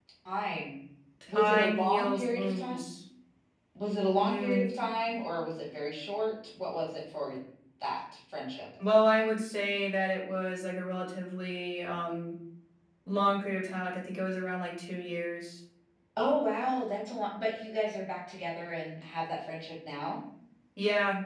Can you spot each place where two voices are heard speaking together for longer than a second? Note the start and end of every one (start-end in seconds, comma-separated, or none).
1.3-2.8